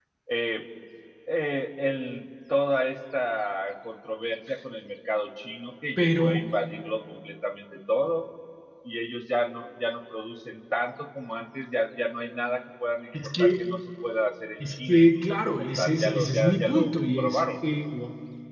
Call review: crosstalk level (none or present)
present